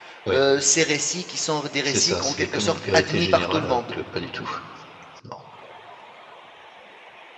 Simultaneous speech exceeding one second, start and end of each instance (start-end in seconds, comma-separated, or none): 1.8-3.9